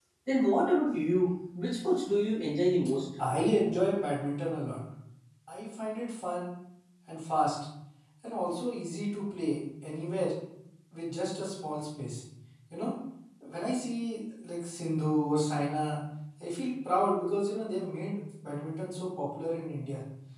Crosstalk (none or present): none